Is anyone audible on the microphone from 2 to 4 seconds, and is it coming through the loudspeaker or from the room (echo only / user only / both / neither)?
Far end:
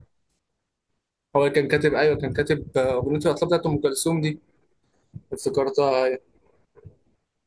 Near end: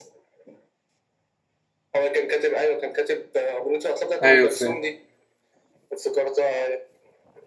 echo only